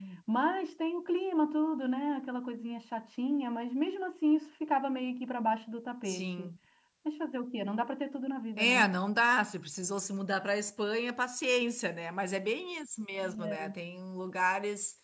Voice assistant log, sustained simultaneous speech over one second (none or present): none